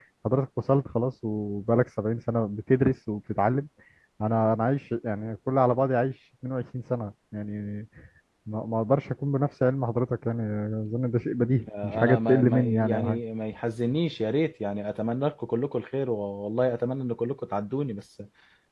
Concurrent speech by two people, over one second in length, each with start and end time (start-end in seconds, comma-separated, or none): 11.8-13.2